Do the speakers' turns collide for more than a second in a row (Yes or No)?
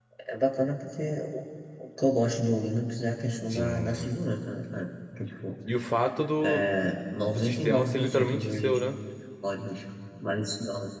Yes